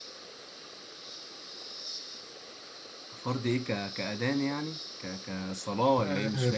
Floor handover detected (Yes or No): Yes